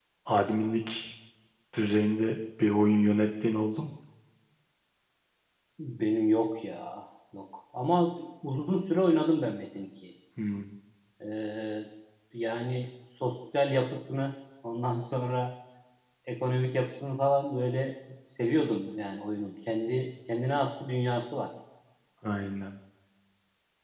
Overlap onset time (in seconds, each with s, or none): none